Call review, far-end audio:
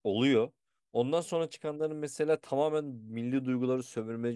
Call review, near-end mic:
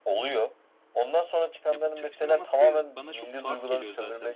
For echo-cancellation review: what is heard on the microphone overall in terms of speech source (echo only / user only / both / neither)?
both